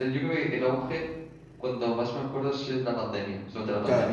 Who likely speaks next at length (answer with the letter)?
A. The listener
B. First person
A